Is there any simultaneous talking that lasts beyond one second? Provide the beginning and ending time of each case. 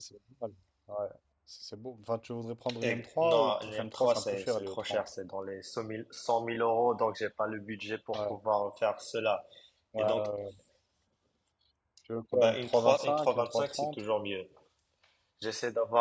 2.8-5.1, 12.3-14.0

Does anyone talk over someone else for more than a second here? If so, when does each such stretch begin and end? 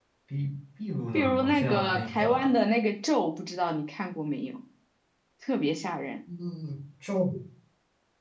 1.1-2.5

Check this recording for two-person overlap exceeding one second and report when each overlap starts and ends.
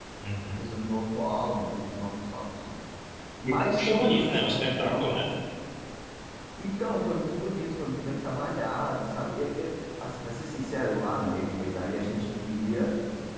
3.4-5.2

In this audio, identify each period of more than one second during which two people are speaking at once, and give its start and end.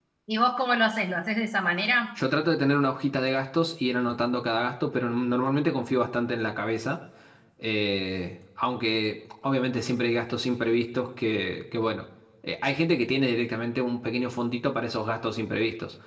none

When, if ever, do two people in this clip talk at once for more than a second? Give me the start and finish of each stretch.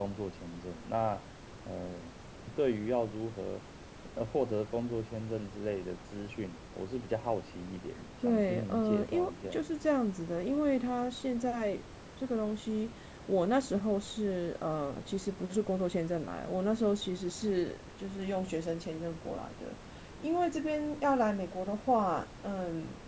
8.2-9.6

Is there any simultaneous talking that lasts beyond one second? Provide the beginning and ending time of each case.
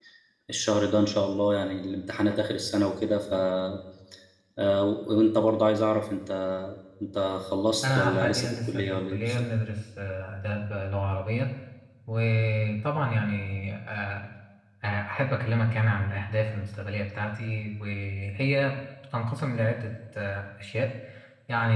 7.8-9.4

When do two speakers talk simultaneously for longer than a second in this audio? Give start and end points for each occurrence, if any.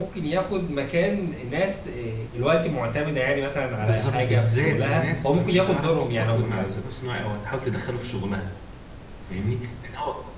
3.8-6.7

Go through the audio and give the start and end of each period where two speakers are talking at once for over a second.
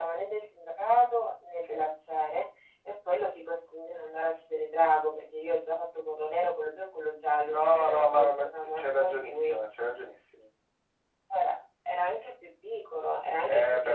7.5-9.9

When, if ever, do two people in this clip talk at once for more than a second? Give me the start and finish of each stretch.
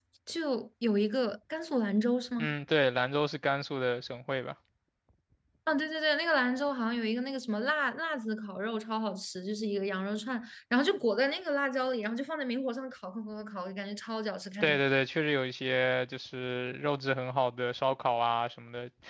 none

